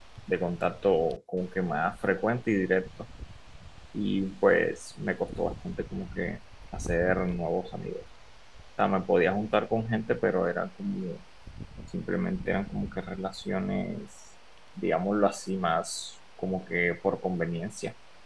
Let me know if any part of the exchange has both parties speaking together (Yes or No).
No